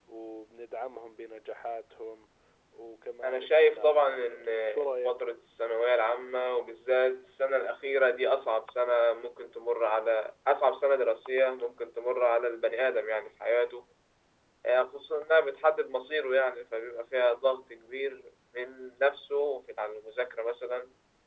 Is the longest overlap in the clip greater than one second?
Yes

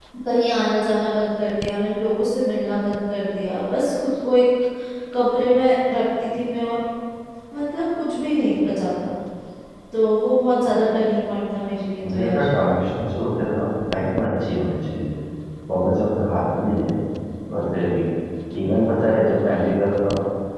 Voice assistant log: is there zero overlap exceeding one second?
Yes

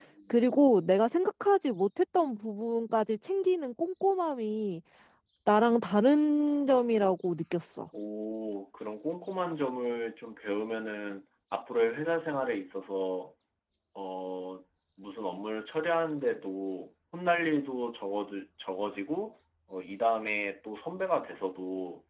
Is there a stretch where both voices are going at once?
No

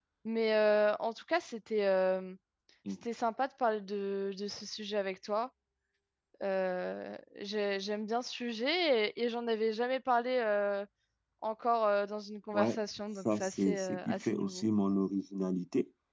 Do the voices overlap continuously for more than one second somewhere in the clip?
Yes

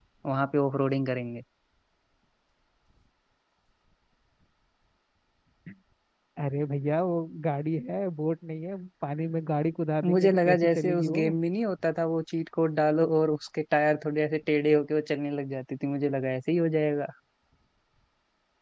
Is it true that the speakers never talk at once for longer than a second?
No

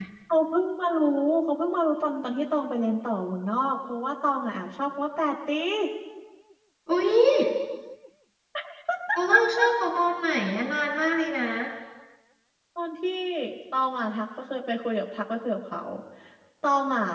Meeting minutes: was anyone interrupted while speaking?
No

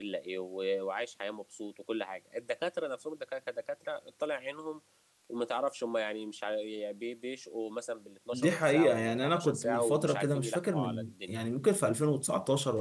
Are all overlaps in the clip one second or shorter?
No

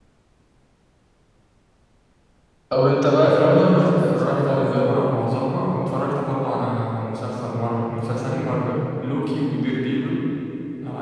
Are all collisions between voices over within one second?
No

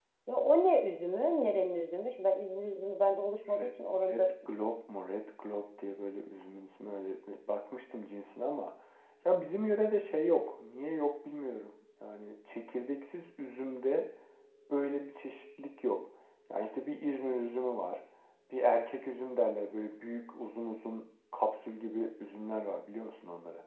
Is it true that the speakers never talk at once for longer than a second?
Yes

